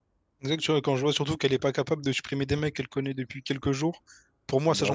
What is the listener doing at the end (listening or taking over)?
listening